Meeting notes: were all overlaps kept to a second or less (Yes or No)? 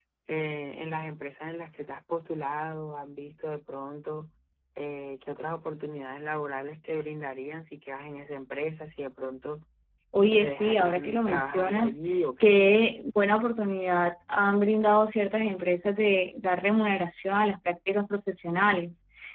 No